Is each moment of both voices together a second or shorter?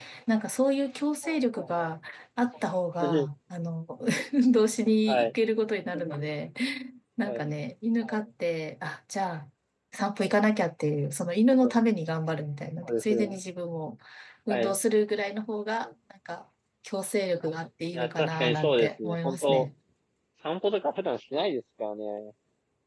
No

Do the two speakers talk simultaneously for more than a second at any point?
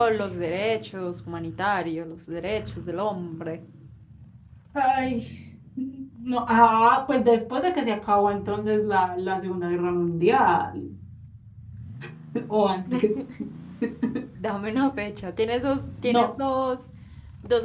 No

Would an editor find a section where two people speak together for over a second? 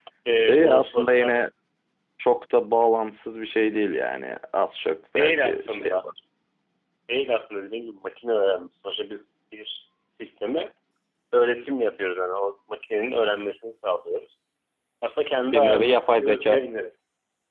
Yes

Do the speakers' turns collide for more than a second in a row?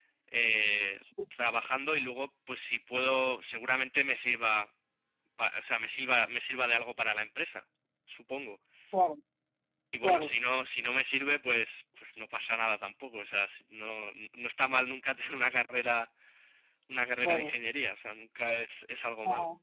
No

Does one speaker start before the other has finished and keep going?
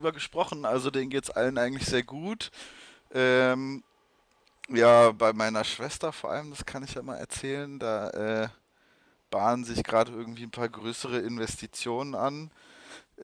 No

